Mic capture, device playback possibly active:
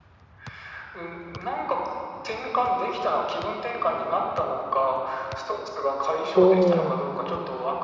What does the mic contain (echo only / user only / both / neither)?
both